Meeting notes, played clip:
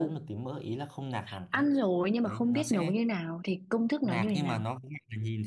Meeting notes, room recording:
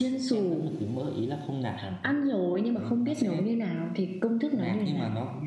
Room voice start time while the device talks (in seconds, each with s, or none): none